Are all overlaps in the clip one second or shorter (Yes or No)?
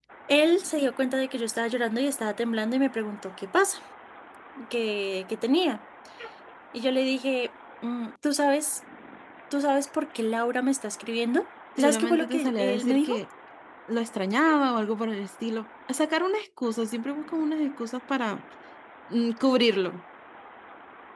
No